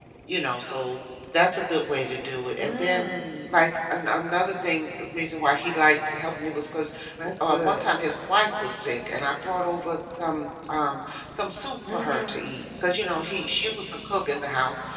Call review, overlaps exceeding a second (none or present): none